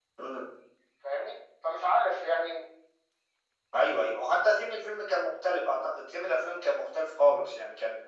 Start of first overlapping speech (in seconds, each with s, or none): none